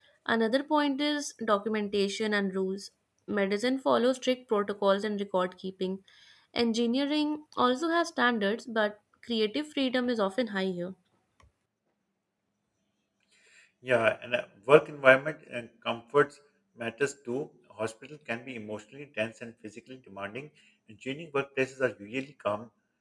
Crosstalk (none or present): none